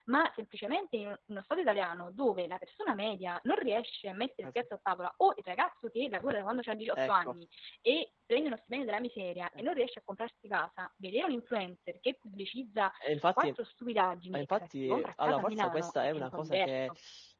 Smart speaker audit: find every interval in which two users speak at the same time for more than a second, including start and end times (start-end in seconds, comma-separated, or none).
14.3-16.9